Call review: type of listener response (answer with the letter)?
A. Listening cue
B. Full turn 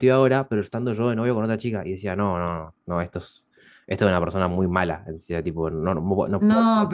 B